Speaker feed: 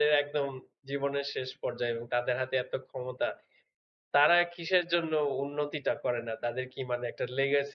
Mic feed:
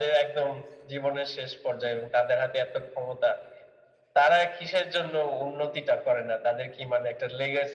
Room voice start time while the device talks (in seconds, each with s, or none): none